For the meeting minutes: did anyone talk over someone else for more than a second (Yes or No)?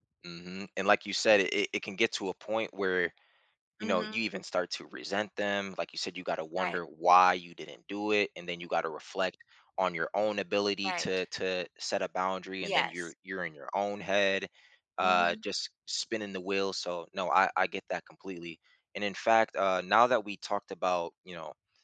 No